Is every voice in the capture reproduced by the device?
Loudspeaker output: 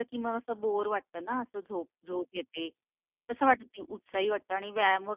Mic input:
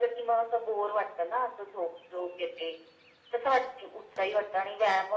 Yes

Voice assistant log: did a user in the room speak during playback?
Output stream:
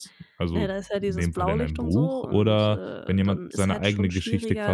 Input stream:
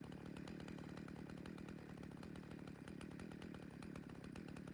No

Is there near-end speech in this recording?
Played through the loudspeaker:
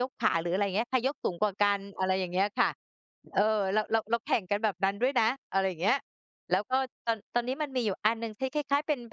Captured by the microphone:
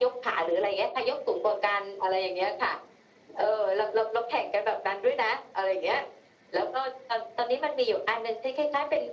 No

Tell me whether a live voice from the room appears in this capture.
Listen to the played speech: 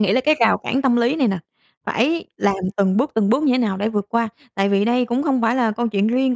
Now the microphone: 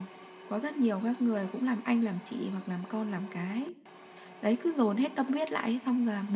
Yes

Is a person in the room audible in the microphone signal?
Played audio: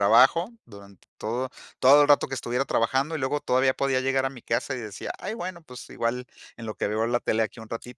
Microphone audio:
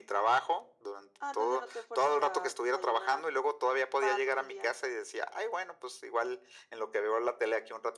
Yes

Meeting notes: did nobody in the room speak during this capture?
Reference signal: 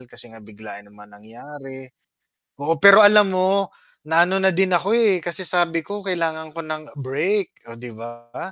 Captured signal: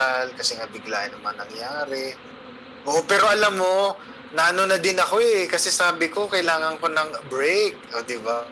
Yes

